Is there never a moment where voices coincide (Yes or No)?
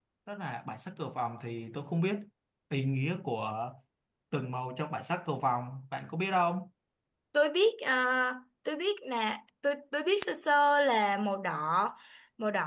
Yes